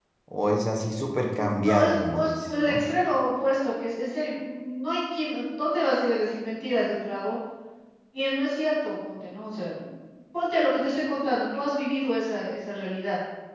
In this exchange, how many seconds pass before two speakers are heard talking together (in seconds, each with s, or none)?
1.4 s